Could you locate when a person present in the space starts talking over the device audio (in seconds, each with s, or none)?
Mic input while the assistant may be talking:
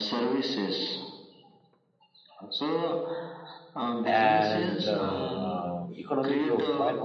4.0 s